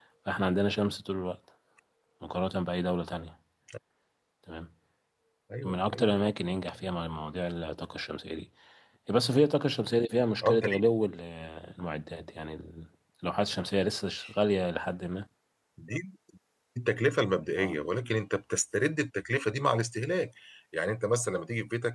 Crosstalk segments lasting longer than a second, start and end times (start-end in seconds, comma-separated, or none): none